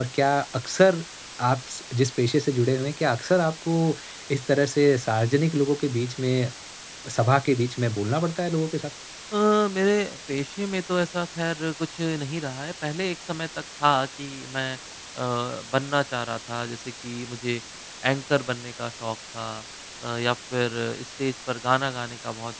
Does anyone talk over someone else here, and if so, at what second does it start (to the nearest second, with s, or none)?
none